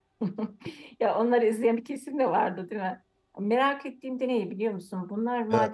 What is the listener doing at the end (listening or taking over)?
listening